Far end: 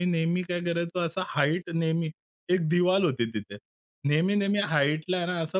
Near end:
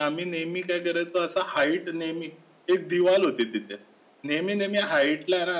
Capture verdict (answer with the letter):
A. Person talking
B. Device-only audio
B